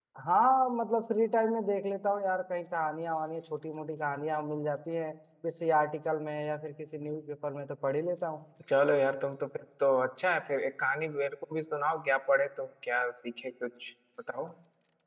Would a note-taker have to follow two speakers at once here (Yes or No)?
No